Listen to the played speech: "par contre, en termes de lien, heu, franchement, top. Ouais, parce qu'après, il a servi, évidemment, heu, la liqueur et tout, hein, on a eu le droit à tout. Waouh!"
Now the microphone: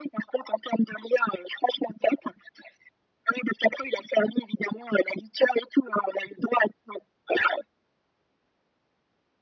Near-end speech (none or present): none